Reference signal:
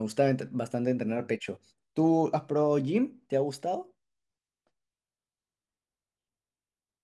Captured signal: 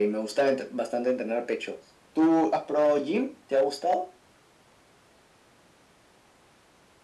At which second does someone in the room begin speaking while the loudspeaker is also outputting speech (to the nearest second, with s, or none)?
none